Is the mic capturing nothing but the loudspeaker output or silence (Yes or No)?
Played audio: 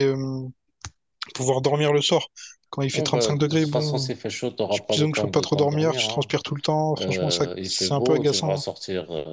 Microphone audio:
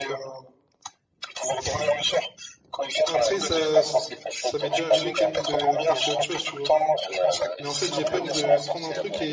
No